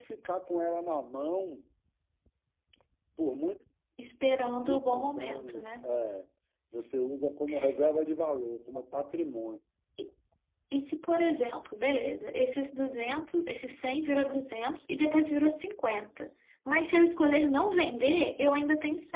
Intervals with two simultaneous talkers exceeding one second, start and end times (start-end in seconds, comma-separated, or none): 4.6-5.9